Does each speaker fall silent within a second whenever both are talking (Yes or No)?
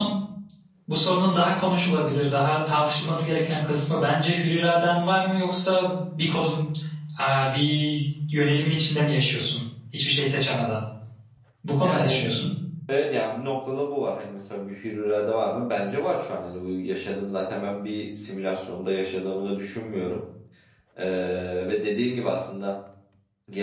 Yes